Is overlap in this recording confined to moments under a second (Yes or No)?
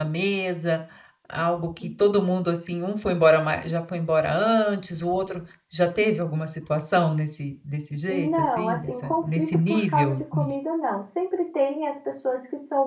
No